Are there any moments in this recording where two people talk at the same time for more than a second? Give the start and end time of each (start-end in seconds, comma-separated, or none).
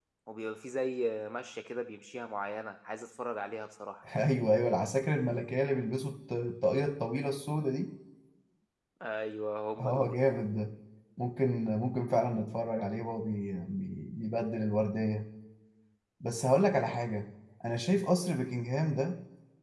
none